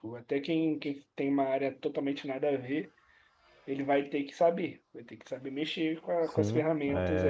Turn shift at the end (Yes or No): Yes